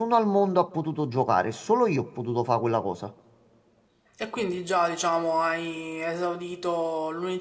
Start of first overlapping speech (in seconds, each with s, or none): none